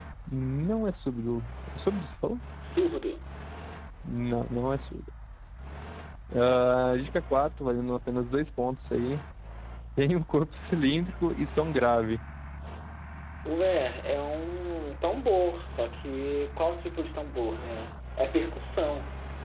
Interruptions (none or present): none